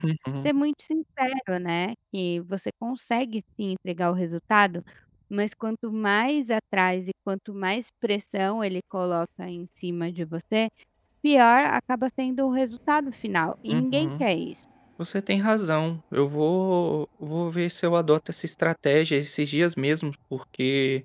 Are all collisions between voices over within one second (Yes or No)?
Yes